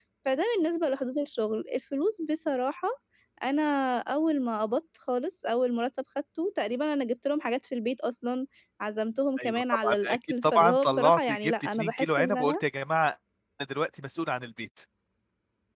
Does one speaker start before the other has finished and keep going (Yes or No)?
Yes